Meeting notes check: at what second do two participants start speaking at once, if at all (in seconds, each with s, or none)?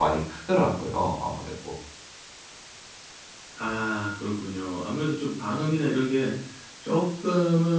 none